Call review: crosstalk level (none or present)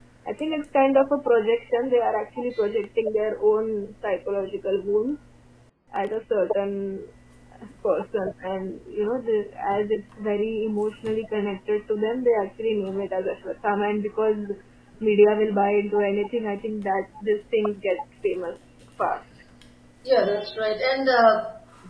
none